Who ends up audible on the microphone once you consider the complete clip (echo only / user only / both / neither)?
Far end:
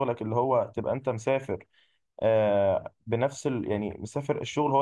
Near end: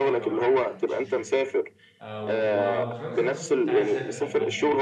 both